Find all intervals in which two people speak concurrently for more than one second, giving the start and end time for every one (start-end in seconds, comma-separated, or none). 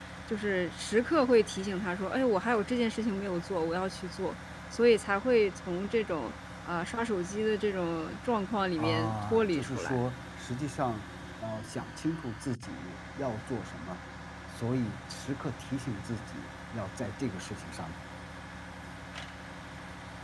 8.8-10.0